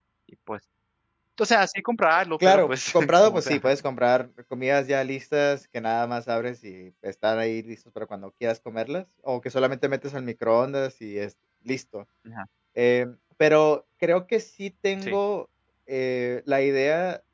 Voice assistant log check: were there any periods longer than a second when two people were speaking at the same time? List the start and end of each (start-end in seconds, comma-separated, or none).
2.4-3.6